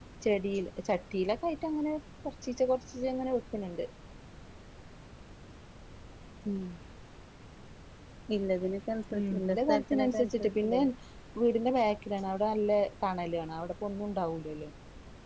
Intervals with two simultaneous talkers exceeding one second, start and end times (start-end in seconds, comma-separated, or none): 9.2-10.8